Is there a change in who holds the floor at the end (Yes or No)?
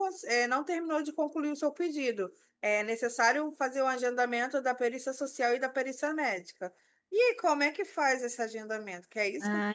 Yes